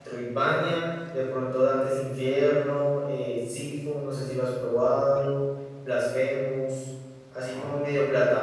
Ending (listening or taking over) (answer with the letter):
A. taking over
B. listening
B